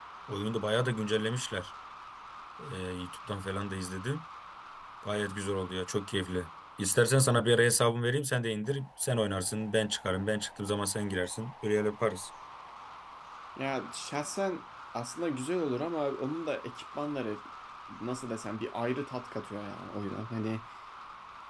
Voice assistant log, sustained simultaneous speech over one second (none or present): none